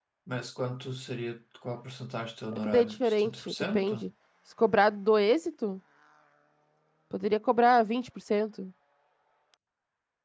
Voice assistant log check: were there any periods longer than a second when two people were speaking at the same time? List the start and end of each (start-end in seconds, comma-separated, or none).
2.5-4.1